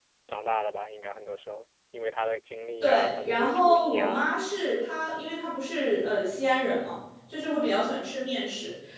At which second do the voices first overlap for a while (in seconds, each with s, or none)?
2.8 s